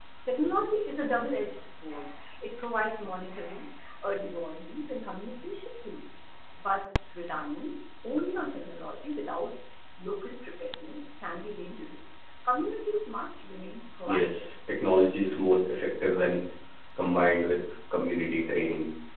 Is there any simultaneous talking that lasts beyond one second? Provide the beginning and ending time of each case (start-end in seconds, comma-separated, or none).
none